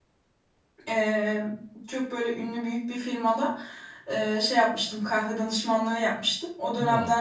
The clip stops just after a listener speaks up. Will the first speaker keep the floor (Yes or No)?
Yes